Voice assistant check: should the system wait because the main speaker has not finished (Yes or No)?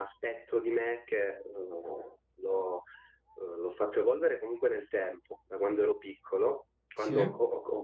Yes